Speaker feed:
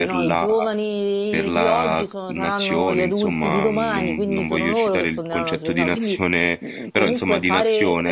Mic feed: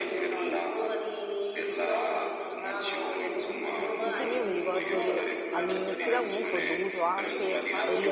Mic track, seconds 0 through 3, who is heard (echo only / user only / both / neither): echo only